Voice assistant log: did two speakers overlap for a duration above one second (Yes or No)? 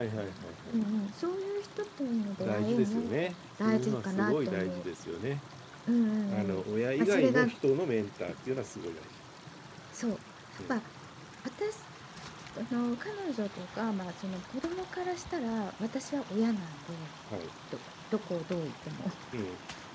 Yes